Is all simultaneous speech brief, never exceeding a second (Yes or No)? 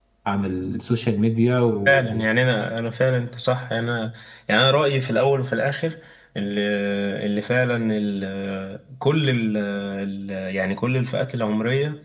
Yes